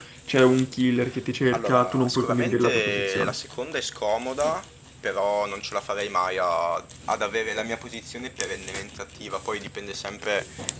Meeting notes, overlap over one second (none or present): present